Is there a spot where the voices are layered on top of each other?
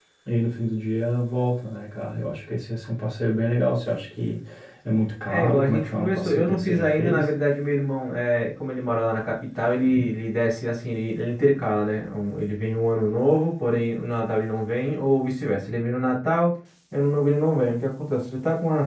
Yes, from 5.3 s

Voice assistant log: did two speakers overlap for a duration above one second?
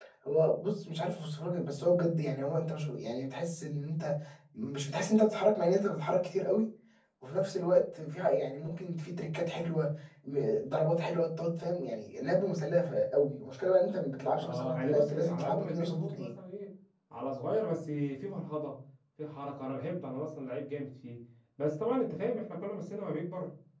Yes, from 14.4 s

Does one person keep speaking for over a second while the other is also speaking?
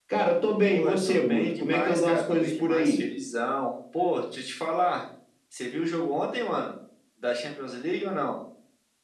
Yes, from 0.6 s

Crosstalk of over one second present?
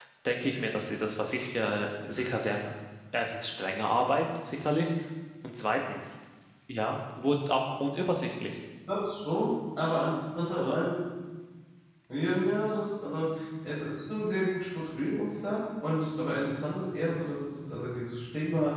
No

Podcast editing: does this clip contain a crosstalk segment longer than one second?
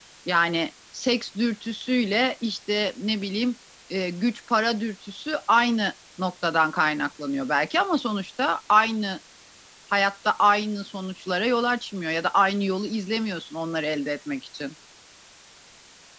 No

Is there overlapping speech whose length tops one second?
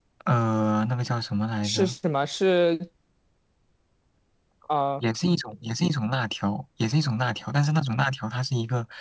No

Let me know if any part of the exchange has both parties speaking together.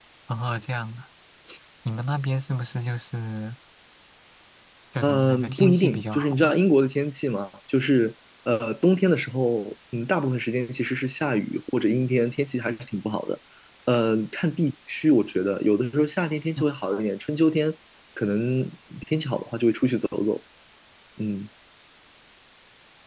Yes, from 5.0 s

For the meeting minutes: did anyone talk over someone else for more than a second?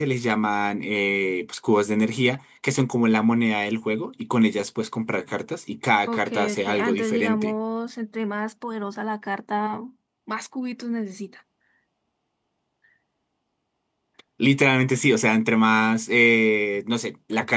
Yes, from 6.1 s

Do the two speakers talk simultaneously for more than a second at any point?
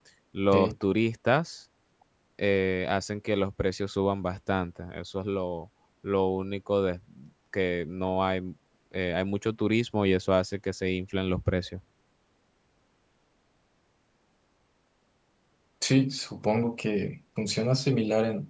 No

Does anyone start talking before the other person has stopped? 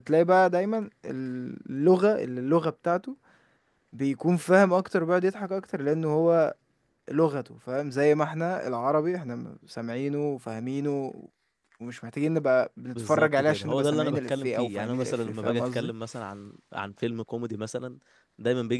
Yes, from 12.9 s

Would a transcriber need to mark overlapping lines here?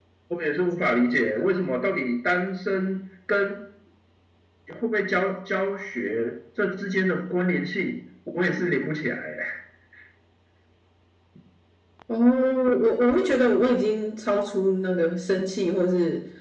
No

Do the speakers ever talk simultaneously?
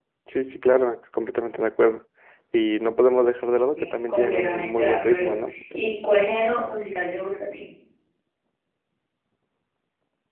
Yes, from 3.8 s

